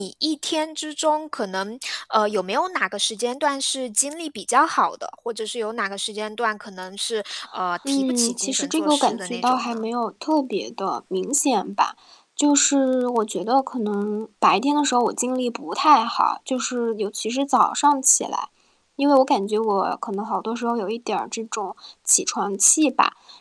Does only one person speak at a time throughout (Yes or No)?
No